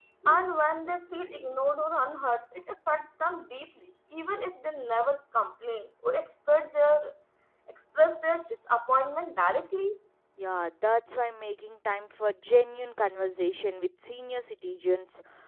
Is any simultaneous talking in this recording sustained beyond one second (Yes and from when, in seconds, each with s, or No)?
No